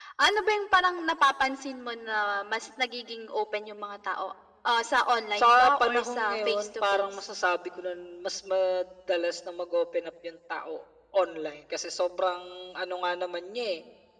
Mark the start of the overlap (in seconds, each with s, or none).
5.4 s